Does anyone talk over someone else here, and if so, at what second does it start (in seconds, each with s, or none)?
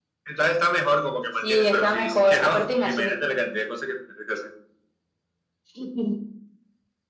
1.4 s